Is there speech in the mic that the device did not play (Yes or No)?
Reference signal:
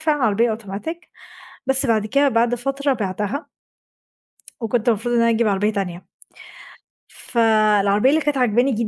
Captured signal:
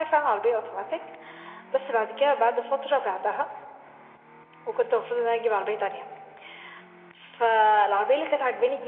No